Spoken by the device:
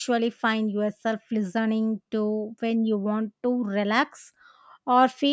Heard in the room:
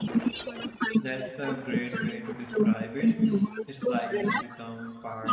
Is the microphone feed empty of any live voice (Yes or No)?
No